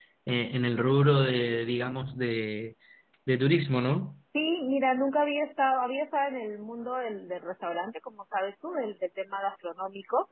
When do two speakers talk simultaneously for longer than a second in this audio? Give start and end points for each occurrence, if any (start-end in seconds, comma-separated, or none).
none